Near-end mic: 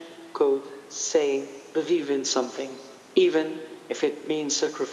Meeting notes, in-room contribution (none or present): none